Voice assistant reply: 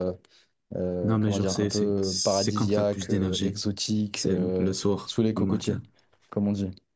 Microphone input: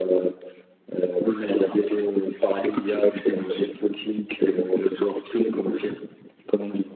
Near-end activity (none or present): none